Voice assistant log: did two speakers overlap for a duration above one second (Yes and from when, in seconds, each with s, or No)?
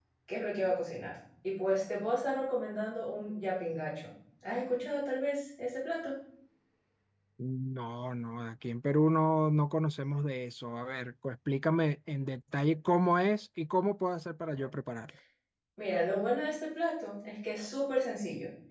No